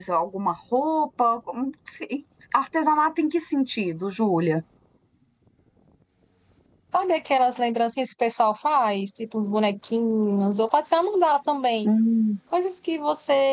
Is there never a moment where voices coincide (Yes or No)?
Yes